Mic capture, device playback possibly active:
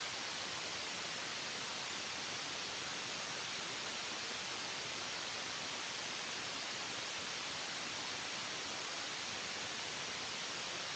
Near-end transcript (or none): none